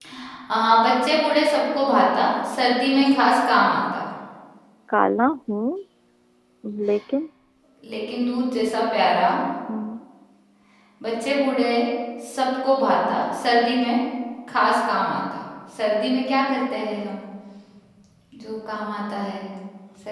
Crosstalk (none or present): none